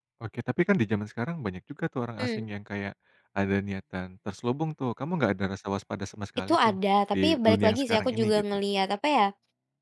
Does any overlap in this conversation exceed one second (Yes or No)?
Yes